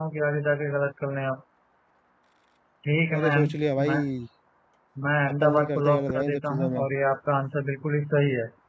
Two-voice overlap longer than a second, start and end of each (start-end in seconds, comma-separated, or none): 5.4-6.8